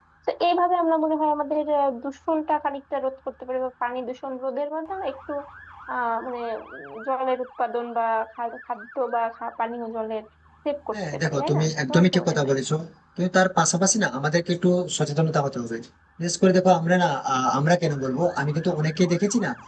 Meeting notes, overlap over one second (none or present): present